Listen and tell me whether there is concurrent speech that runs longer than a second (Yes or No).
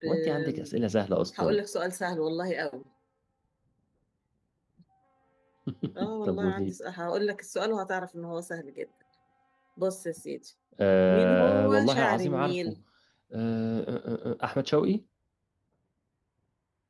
Yes